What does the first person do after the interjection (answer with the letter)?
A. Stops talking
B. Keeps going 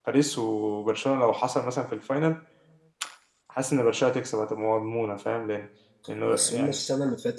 A